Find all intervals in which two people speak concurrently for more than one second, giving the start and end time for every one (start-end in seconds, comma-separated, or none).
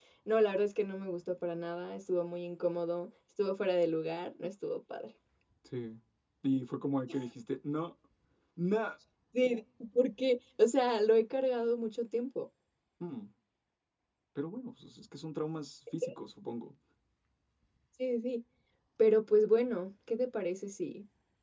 none